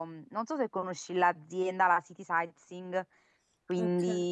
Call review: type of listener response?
taking over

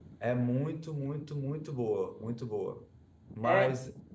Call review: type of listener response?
listening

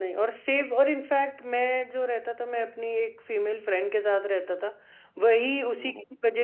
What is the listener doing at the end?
listening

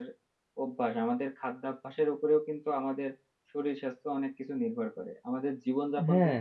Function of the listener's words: listening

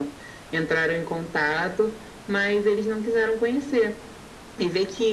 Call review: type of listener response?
listening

